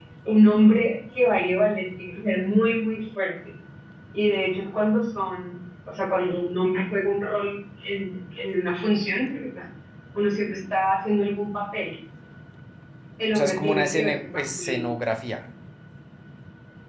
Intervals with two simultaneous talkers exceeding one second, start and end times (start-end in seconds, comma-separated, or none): 13.3-14.8